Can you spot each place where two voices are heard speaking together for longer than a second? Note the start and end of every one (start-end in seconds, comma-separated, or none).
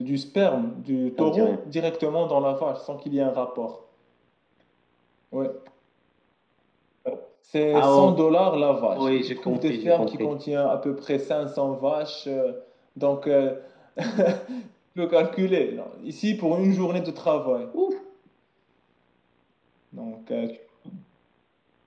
8.9-10.3